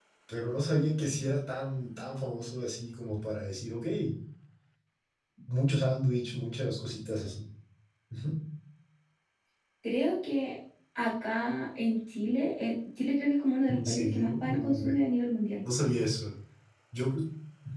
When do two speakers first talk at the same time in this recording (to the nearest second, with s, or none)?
14 s